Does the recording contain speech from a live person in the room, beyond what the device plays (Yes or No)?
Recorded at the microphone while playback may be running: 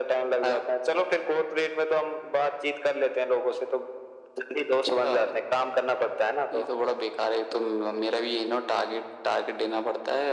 No